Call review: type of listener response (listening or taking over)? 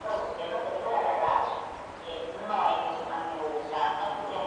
listening